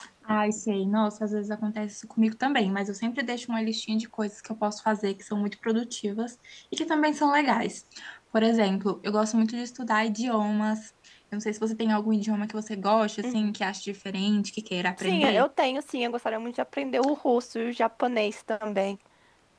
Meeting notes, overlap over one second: none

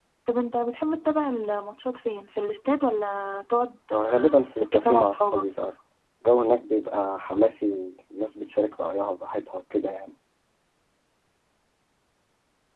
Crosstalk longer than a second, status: present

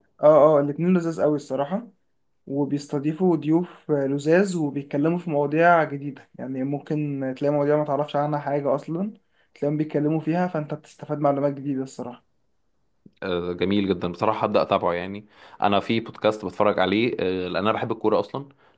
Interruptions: none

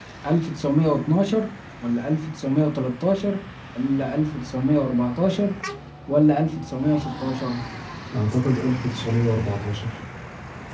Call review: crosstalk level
none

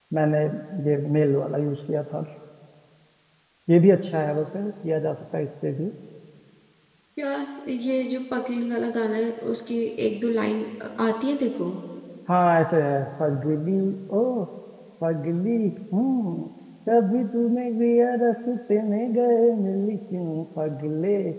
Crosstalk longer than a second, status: none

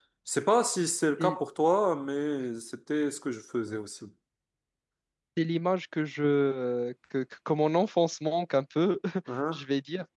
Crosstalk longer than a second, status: none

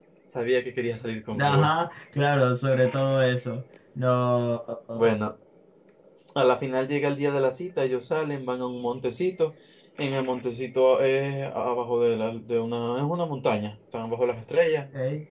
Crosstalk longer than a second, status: none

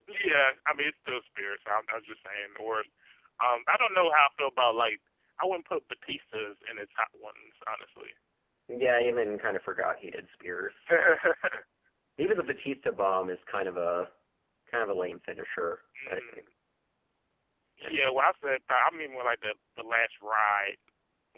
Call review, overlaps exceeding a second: none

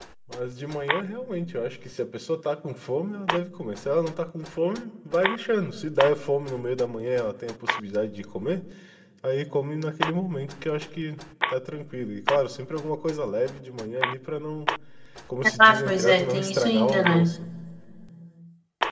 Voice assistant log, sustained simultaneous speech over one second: present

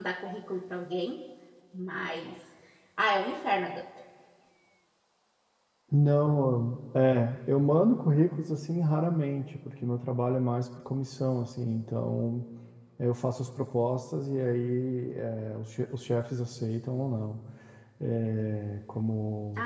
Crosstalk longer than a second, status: none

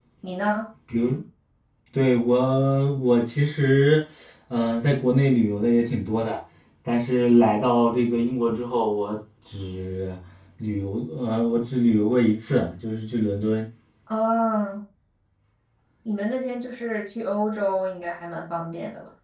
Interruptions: none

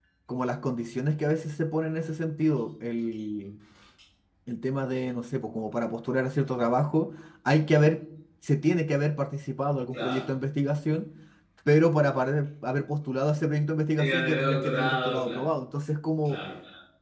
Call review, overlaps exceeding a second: present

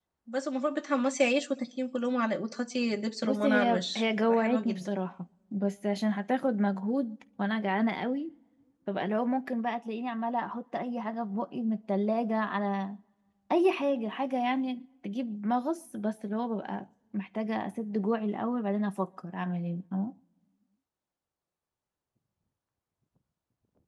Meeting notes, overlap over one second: present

